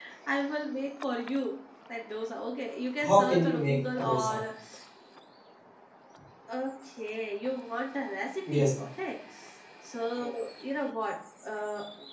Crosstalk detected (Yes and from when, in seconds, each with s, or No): Yes, from 3.0 s